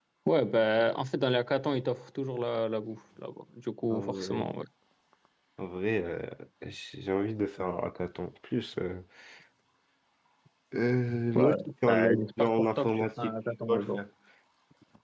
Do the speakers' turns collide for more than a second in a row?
Yes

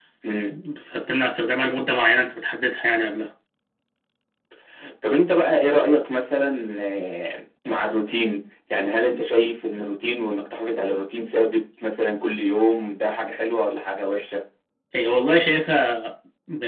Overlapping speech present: No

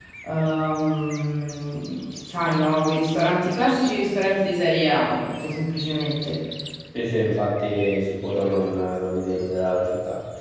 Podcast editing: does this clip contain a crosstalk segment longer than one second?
No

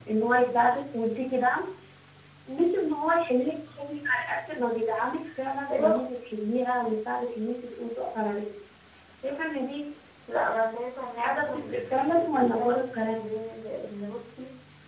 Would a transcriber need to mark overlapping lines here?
Yes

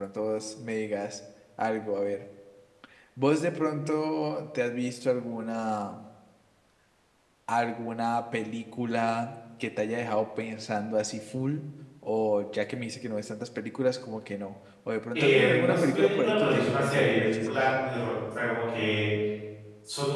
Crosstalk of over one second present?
Yes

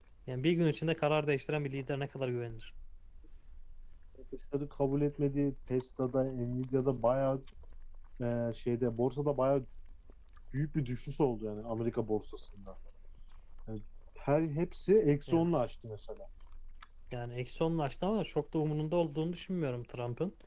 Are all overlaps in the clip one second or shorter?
Yes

